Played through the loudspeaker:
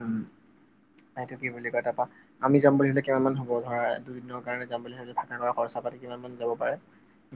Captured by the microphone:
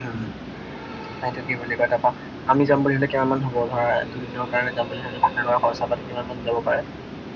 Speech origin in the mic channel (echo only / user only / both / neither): echo only